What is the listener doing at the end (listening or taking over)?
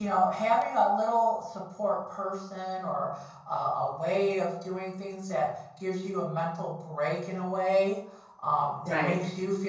listening